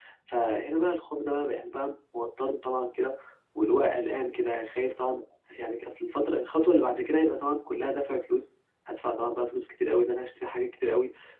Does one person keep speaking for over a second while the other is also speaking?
No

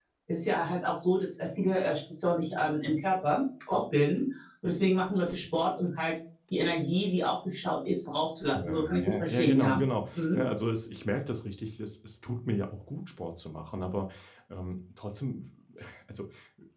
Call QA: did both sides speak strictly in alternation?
No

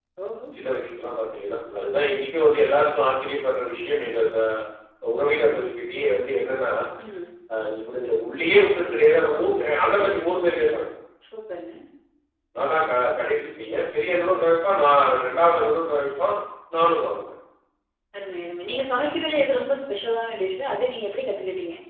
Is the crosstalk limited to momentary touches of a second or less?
Yes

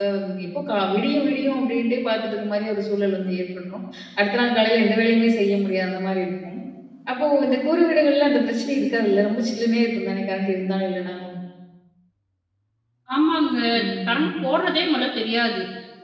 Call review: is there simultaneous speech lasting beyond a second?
No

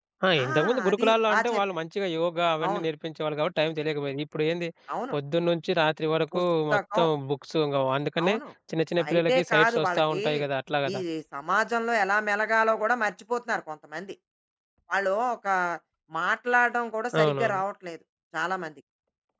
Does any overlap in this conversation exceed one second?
Yes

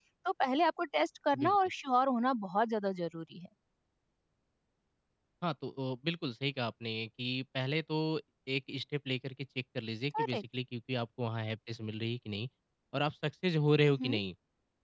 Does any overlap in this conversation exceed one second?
No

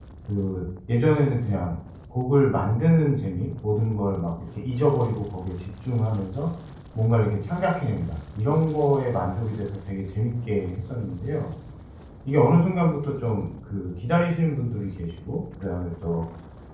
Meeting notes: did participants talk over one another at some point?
No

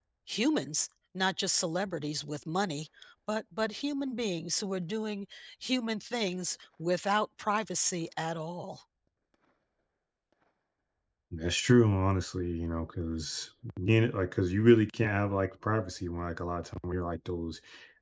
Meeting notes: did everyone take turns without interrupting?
Yes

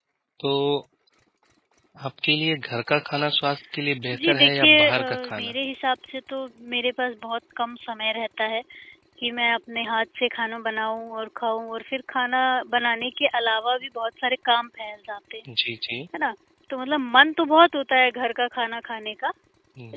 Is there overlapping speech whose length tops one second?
Yes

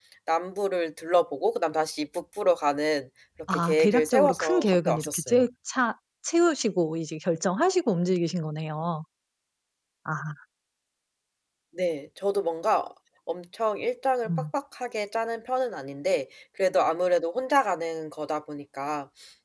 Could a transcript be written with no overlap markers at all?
No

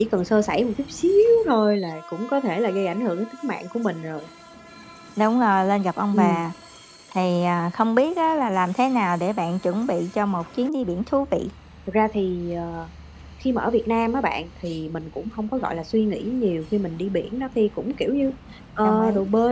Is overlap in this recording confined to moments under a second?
Yes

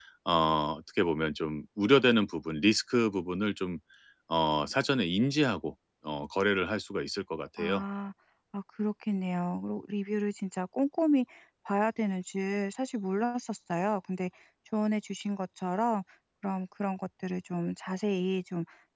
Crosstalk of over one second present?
No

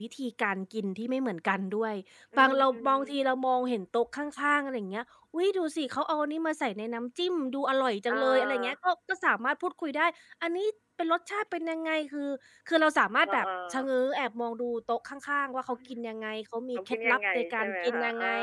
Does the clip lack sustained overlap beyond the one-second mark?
No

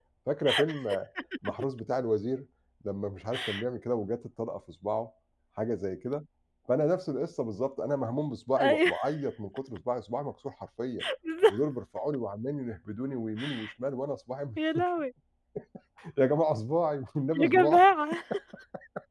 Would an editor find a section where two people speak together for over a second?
No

